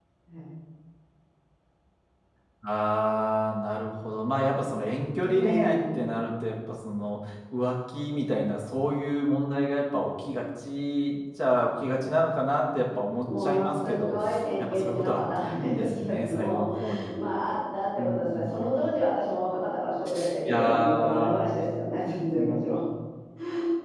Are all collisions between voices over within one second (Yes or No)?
No